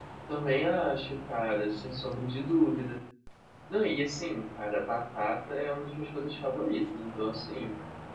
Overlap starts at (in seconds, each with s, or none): none